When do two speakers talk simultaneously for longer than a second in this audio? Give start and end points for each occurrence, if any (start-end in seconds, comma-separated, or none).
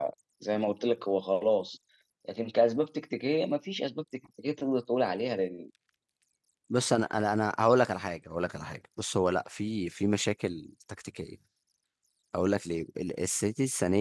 none